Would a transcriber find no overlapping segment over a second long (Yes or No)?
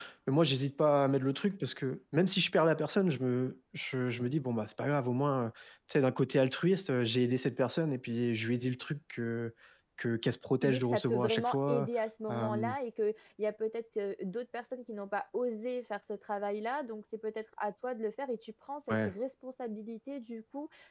No